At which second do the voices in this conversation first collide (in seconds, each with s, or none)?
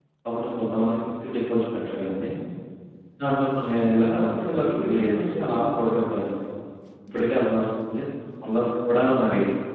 3.9 s